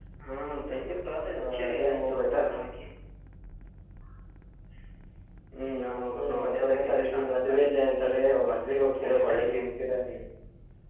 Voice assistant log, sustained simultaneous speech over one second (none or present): present